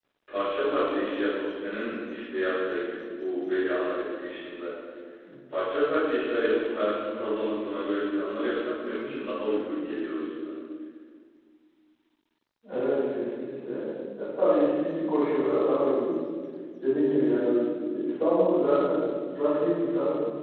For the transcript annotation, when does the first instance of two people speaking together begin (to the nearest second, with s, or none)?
none